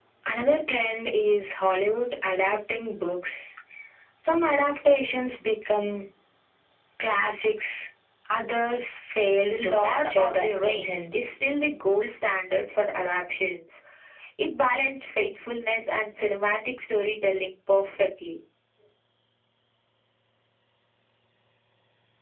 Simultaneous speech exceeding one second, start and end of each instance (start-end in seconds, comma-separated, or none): 9.4-11.3